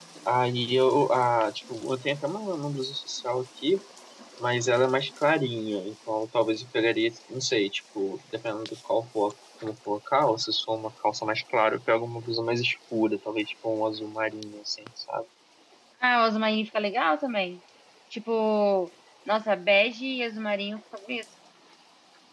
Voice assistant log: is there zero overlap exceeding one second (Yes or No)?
Yes